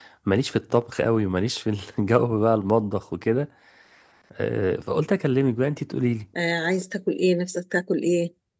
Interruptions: none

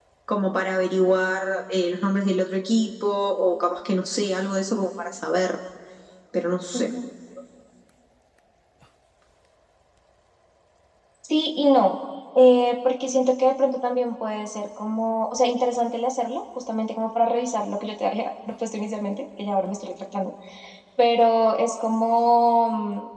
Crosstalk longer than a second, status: none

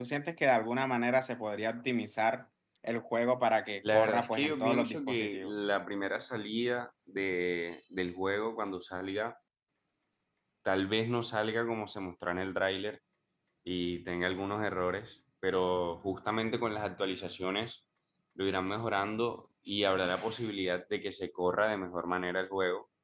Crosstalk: present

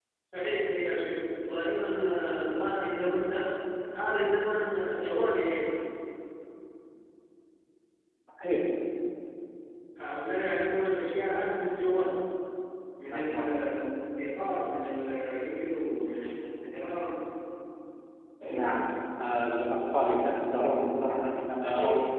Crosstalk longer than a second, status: none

